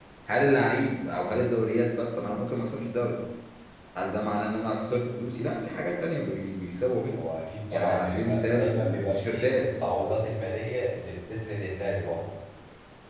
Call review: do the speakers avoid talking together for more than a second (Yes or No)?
No